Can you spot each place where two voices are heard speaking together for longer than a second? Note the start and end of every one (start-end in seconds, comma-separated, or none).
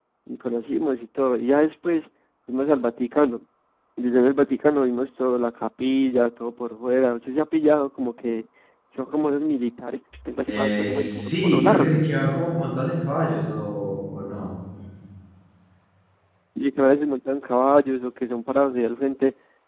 10.5-12.0